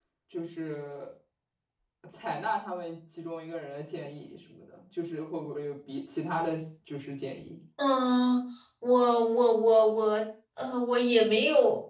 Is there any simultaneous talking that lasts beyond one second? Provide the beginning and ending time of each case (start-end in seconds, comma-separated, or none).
none